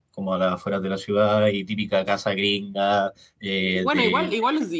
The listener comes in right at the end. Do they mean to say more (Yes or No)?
Yes